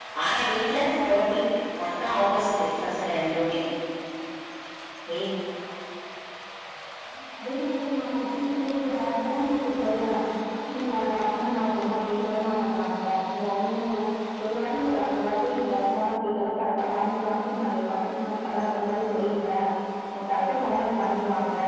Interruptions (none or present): none